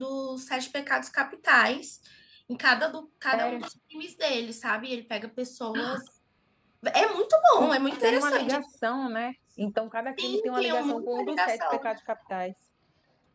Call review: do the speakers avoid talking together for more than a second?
No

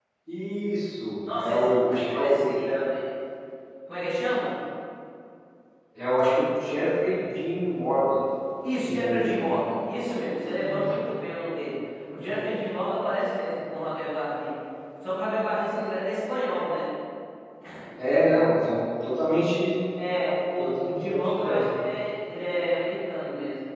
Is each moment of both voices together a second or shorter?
No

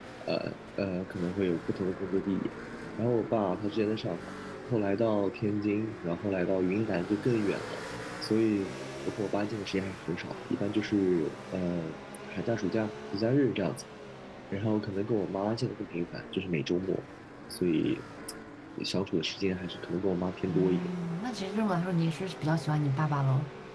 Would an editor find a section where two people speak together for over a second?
No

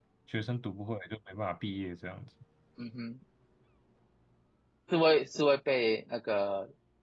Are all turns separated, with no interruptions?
Yes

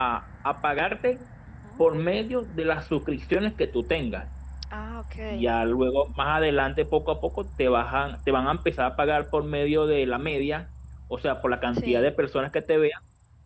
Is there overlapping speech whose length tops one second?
No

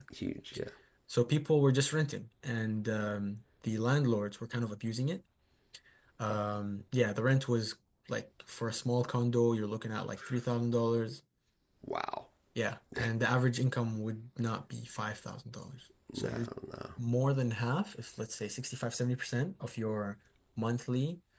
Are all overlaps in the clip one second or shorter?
Yes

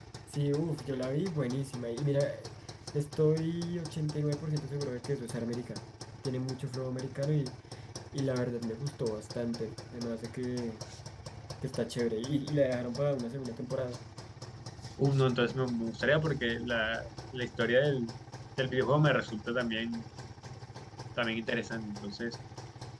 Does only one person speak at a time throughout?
Yes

